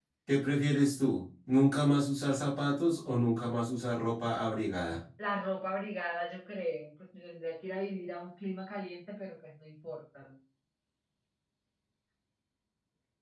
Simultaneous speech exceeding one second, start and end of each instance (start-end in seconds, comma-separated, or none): none